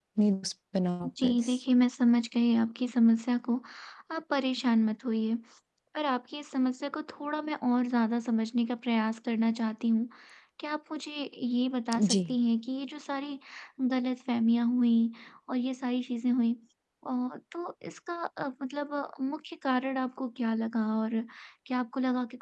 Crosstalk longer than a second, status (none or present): none